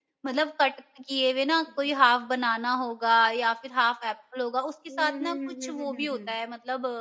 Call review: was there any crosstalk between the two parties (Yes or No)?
Yes